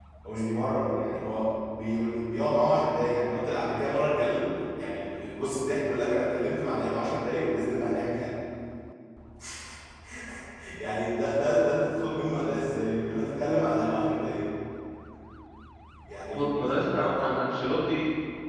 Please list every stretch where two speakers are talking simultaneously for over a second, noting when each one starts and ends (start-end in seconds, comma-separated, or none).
16.3-17.6